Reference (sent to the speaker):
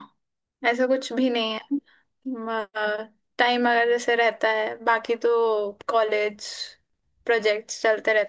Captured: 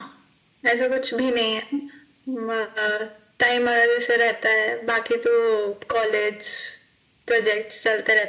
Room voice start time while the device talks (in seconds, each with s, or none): none